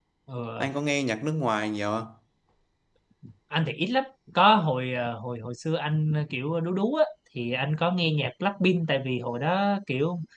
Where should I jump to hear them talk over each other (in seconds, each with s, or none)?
none